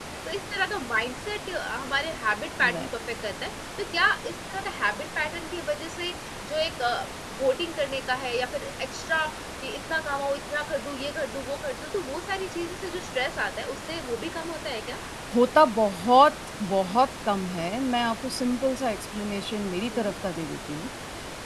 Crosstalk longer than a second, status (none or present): none